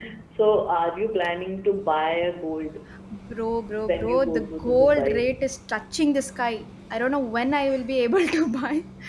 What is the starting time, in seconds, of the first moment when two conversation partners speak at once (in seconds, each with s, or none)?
3.8 s